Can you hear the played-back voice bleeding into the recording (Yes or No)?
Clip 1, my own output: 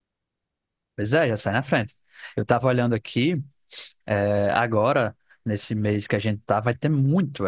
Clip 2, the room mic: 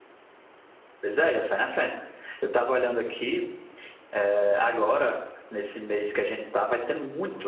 Yes